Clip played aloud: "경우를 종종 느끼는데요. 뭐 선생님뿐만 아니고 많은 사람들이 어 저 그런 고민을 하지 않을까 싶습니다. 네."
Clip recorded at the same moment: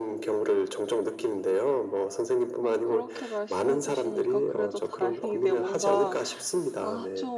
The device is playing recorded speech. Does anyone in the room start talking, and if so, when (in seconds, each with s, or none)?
2.6 s